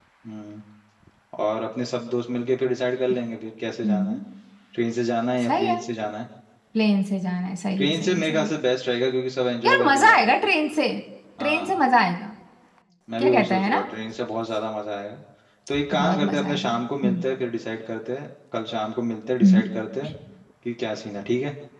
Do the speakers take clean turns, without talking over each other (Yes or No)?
No